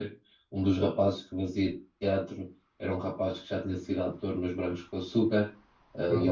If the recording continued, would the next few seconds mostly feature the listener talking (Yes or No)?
No